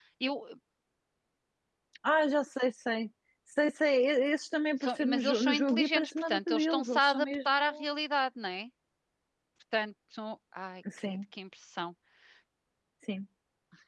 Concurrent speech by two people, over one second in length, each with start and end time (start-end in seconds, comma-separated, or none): 4.8-7.8